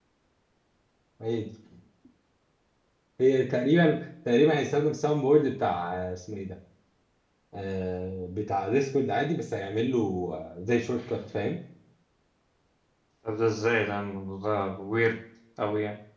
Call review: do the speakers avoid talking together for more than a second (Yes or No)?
Yes